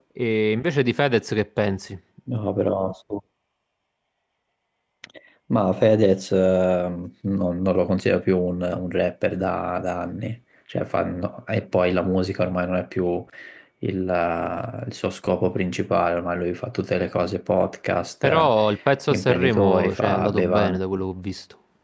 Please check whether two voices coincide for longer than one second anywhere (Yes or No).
Yes